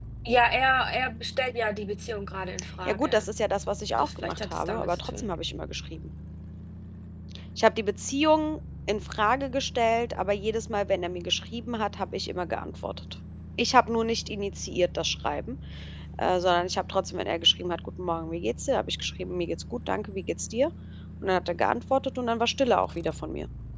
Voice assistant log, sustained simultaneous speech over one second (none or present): present